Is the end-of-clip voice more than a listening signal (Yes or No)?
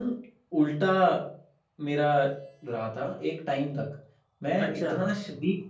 No